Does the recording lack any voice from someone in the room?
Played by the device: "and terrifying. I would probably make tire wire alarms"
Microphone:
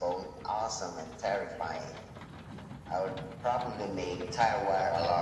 Yes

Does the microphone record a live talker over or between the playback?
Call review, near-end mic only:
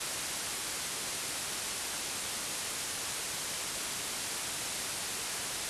No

